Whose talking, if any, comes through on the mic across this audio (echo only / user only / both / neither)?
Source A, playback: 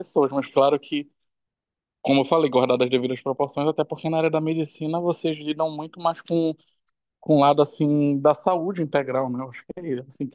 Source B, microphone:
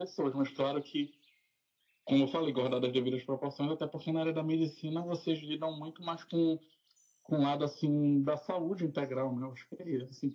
echo only